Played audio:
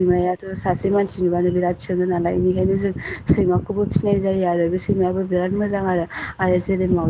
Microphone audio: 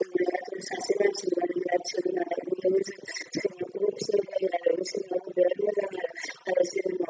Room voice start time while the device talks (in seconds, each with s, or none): none